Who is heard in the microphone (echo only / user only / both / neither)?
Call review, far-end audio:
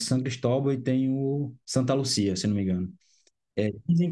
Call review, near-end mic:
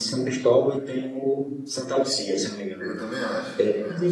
both